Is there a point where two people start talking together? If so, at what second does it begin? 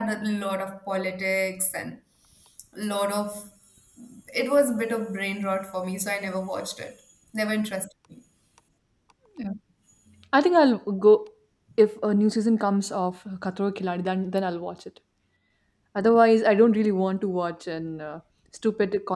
none

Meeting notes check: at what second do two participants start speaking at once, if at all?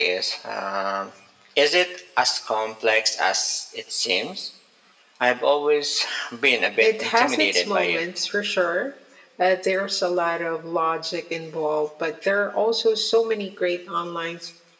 6.8 s

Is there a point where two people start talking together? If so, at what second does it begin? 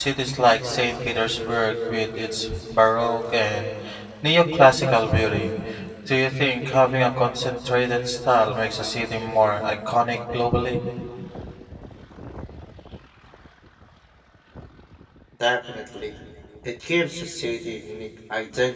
none

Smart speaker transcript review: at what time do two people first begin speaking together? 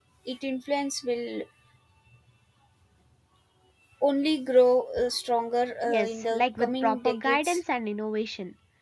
5.8 s

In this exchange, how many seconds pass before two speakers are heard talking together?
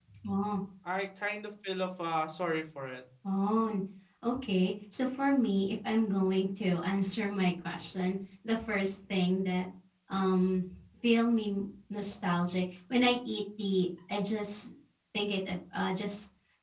none

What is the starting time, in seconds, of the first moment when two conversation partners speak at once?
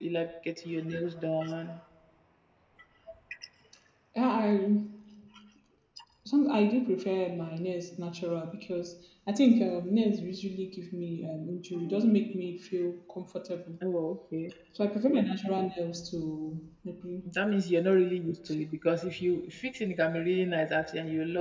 none

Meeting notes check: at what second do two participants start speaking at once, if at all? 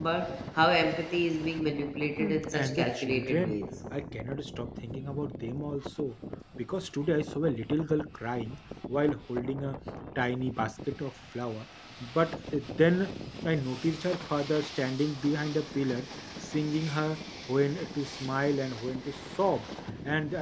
2.2 s

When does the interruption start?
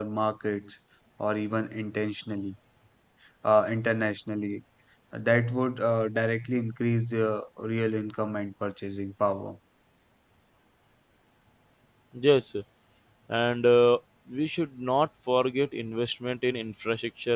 none

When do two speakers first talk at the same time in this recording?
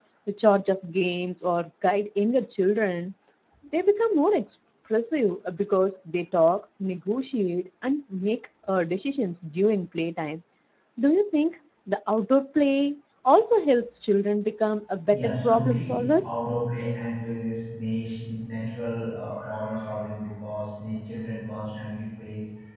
15.1 s

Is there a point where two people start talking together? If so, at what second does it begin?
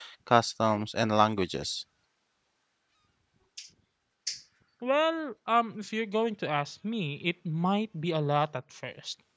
none

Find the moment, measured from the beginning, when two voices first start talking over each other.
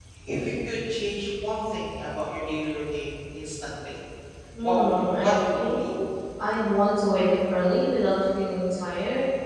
4.6 s

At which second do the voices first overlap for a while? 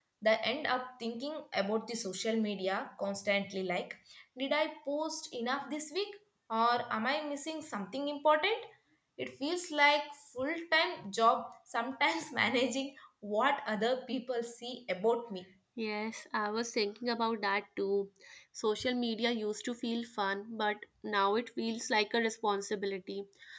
none

